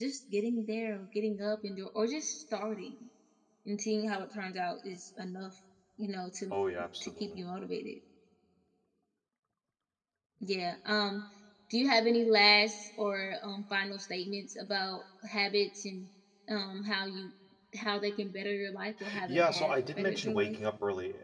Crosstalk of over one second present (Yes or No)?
Yes